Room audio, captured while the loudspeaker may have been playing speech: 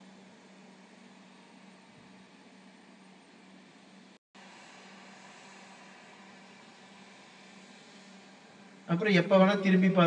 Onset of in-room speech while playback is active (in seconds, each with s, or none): 8.9 s